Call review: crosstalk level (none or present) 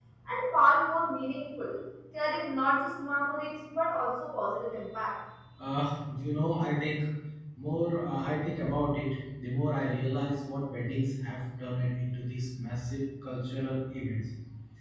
none